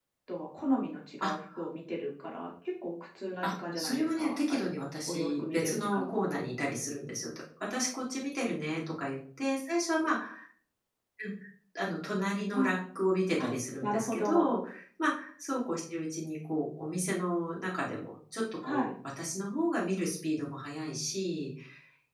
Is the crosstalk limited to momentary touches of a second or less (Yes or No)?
No